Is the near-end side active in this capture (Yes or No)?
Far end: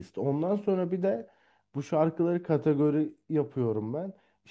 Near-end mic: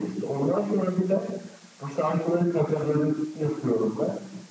No